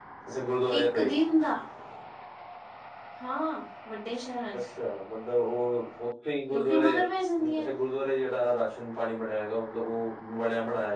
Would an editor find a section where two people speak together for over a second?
No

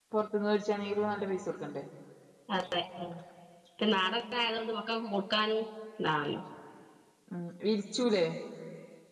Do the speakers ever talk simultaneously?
No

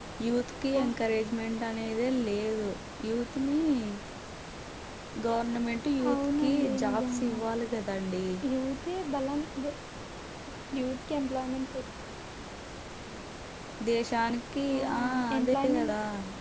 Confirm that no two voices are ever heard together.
No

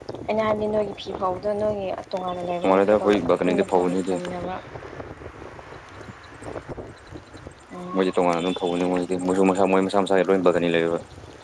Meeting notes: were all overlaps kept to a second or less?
No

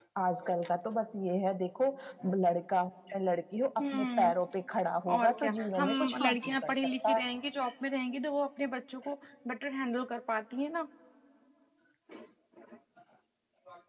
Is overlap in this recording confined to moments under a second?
No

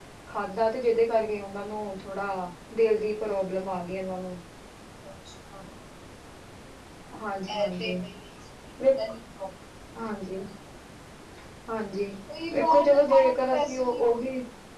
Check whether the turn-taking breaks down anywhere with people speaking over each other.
Yes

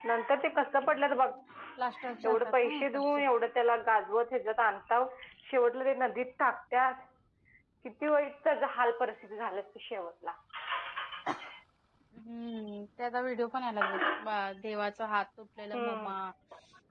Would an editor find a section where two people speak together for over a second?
Yes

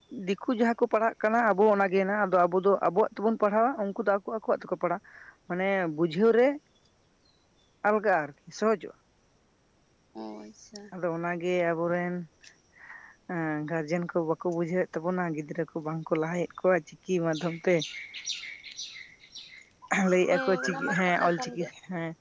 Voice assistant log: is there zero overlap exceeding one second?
No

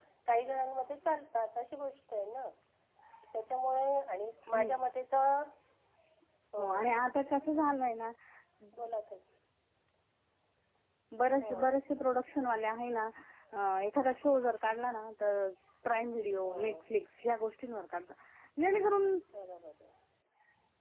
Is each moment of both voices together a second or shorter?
Yes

